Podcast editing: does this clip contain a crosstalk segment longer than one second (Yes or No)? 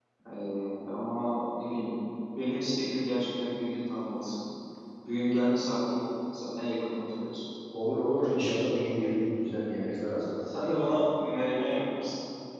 No